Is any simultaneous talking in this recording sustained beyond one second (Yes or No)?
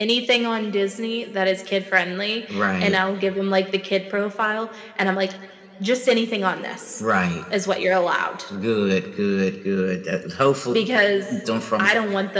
No